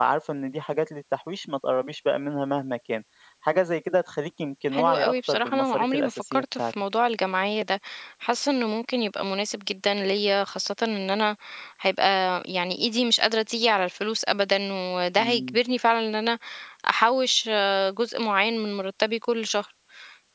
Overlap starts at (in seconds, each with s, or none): 4.7 s